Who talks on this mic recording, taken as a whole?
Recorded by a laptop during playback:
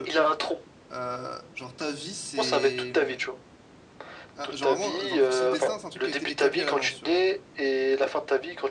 both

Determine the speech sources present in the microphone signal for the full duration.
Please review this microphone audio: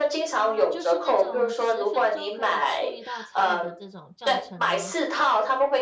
both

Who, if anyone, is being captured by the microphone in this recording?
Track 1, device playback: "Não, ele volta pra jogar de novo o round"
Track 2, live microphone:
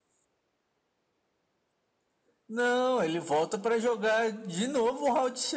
echo only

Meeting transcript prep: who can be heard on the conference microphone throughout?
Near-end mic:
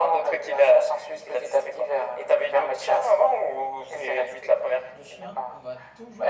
both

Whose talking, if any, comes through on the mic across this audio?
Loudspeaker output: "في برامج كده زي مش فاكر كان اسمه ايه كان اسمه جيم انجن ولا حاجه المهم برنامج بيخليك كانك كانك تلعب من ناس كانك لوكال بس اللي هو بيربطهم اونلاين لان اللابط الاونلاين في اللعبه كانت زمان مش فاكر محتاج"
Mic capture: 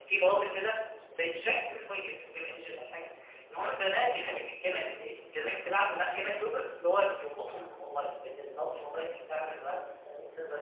echo only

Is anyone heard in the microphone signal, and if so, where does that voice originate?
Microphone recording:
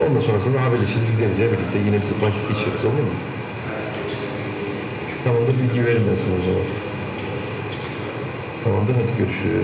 both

